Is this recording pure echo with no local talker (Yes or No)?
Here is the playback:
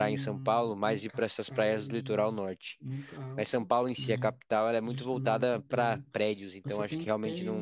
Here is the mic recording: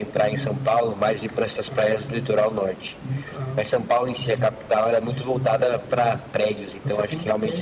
Yes